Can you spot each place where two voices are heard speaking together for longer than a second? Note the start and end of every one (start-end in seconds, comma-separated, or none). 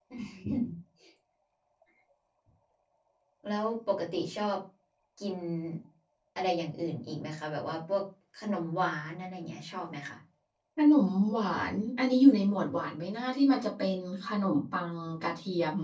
none